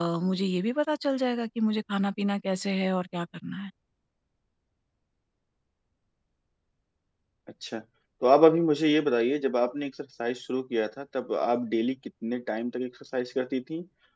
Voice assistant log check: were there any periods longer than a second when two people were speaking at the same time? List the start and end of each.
none

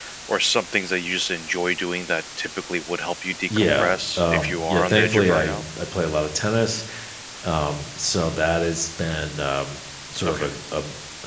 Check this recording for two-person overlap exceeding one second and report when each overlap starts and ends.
3.6-5.6

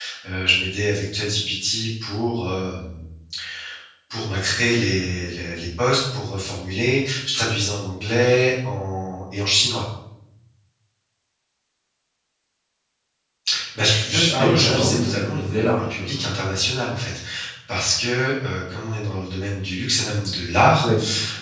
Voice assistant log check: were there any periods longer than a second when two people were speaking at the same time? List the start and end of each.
14.0-16.3

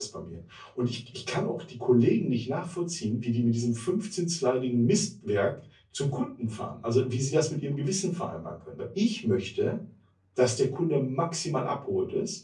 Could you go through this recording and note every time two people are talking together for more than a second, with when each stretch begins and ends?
none

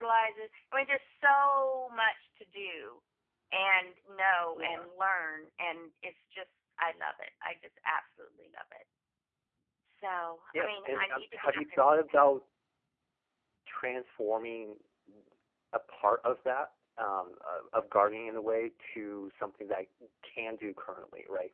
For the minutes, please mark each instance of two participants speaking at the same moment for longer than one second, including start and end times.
10.6-12.2

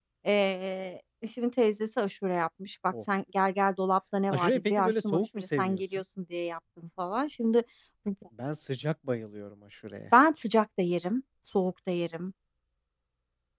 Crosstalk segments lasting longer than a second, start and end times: 4.3-5.8

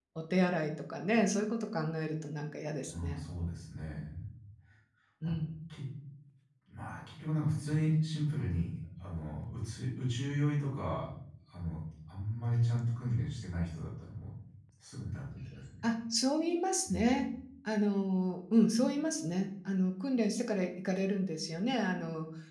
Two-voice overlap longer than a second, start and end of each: none

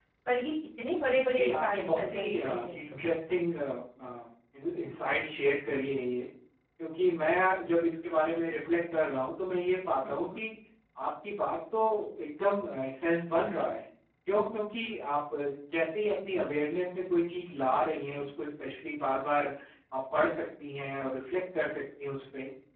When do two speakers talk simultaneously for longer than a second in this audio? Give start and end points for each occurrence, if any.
1.4-3.1

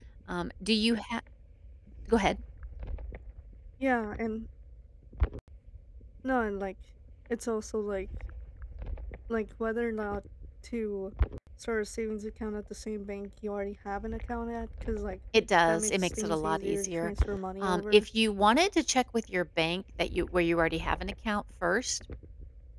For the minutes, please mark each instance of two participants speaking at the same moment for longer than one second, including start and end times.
15.7-17.1

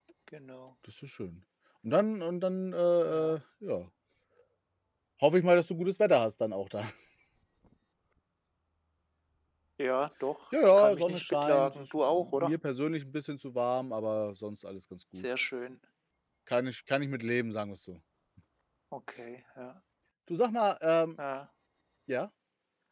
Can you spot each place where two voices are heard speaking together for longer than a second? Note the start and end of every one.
10.7-12.5

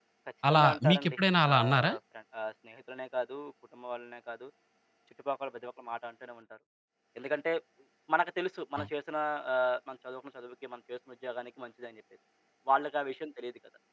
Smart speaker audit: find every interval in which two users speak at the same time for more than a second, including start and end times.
0.5-1.9

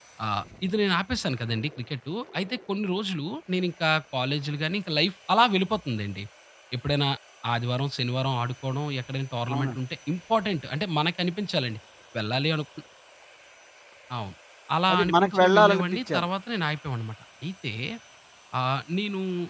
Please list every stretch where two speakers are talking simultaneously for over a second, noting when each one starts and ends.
14.9-16.2

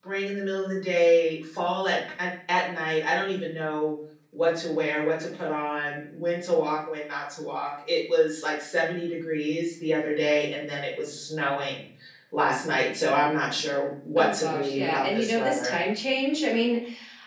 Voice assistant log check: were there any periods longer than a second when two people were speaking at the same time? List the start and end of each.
14.2-15.8

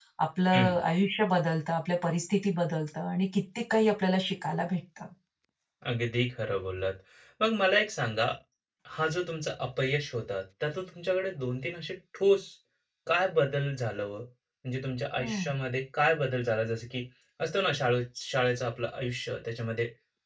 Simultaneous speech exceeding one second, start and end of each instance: none

